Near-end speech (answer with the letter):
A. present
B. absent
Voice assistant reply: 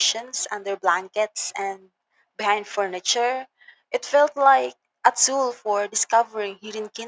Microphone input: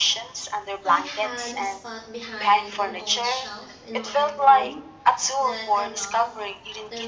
A